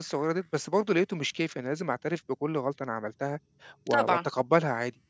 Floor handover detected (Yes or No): No